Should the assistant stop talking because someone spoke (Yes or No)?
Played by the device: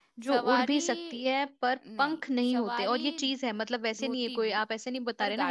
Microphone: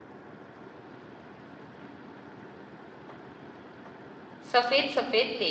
Yes